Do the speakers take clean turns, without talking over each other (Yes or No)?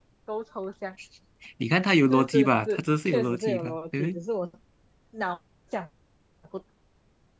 No